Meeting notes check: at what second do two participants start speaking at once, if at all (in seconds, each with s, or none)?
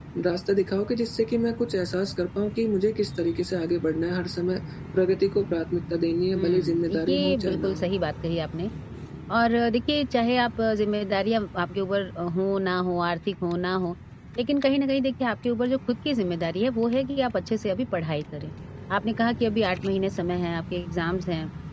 6.3 s